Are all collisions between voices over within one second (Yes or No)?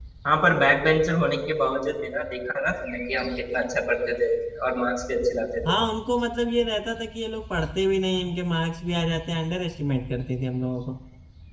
Yes